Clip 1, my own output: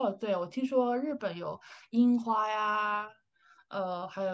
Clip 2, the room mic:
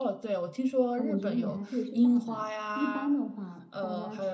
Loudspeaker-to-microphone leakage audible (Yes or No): Yes